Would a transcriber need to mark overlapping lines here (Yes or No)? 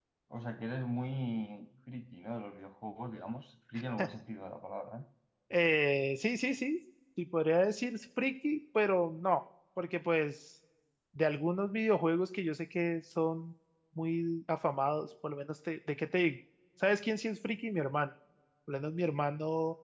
No